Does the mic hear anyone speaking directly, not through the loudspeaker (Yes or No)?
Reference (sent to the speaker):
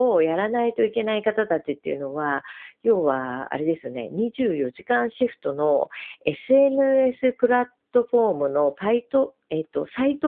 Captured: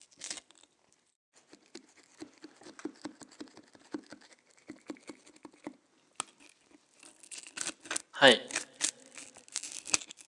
Yes